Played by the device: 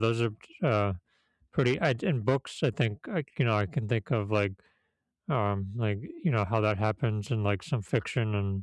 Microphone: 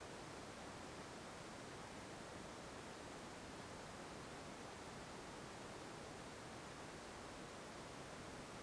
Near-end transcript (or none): none